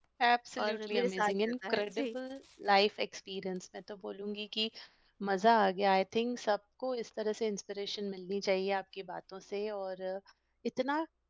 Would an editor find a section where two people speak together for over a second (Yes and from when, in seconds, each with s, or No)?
Yes, from 0.7 s